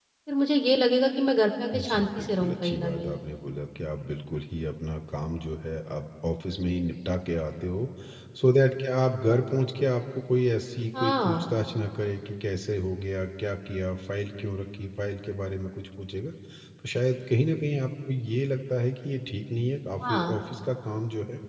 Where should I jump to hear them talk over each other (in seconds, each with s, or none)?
1.7 s